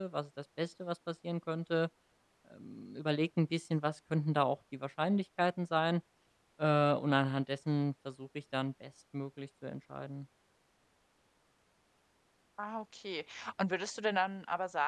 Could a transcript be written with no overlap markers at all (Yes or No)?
Yes